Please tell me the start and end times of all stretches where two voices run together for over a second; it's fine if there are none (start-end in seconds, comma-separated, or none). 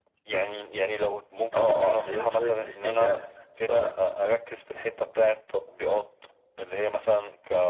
1.6-3.1